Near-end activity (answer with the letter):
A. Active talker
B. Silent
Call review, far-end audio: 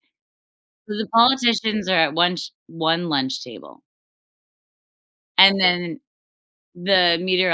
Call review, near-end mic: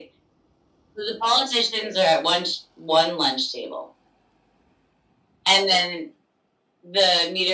B